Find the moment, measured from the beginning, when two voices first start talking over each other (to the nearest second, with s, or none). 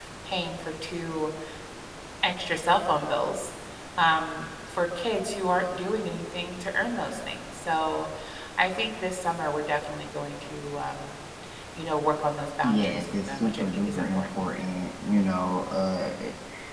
13 s